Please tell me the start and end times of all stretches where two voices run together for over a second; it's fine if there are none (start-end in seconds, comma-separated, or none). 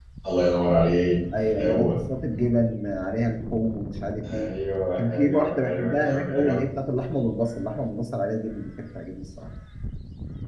5.0-6.7